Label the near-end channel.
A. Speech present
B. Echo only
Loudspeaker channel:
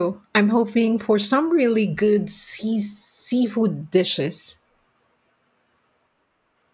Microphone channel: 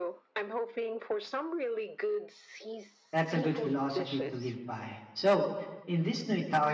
A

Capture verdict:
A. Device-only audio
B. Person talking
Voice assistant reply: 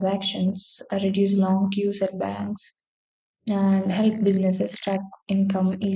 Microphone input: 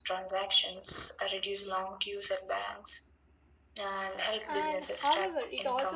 B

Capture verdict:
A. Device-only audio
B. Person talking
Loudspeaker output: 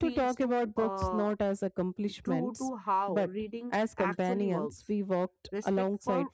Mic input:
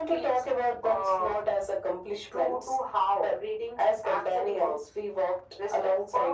A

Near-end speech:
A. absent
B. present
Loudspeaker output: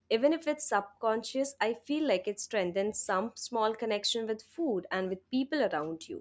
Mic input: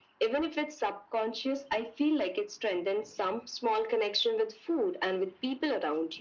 A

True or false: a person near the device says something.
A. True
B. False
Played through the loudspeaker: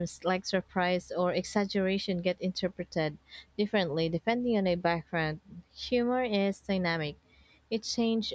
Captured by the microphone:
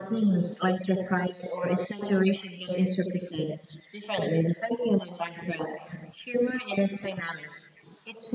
B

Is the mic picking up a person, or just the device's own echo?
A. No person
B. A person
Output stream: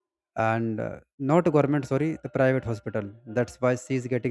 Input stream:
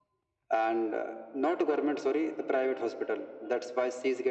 A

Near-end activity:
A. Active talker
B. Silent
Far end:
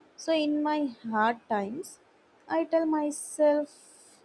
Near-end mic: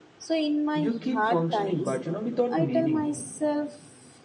A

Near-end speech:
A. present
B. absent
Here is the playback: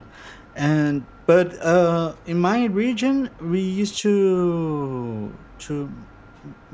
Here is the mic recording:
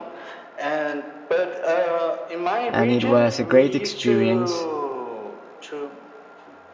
A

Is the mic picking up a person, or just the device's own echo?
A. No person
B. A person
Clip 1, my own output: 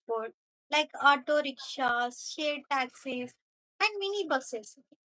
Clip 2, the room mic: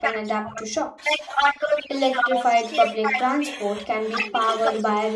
B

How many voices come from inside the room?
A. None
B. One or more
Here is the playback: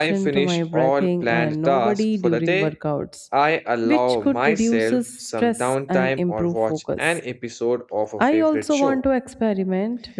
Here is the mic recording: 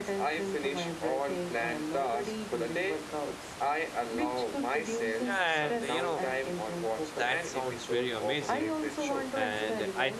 B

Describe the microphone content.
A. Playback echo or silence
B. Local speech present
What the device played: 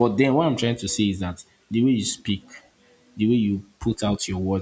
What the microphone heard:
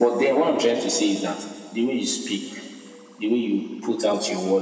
A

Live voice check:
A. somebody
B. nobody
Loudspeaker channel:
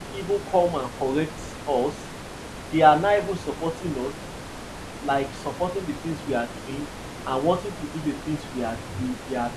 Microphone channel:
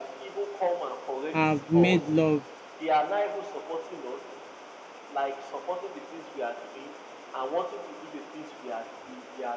A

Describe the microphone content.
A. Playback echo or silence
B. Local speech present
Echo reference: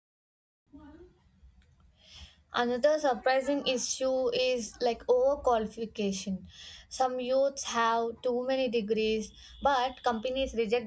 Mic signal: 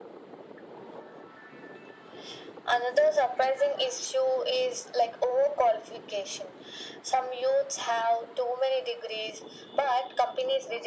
A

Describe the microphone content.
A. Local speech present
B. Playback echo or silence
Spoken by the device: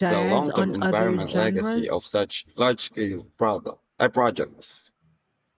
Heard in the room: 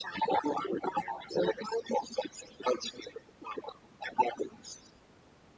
B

